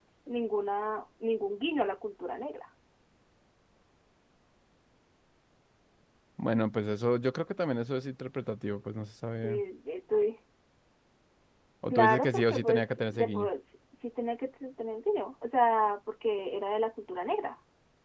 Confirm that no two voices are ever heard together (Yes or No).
No